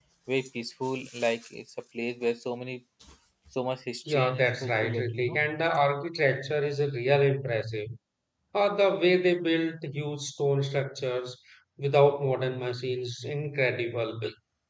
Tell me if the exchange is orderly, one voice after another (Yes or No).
No